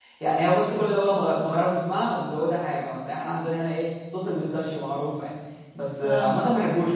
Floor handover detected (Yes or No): No